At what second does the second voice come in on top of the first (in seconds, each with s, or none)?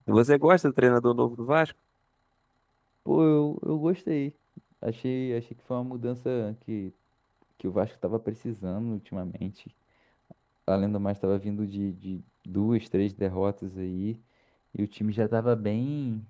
none